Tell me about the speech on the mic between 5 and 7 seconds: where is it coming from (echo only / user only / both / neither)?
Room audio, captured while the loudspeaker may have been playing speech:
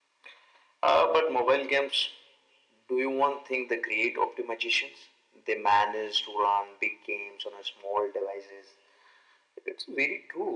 echo only